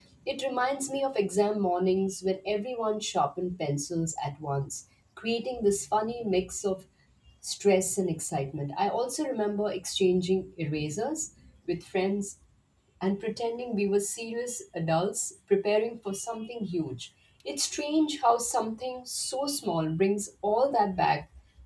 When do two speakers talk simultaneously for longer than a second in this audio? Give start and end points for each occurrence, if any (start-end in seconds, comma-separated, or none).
none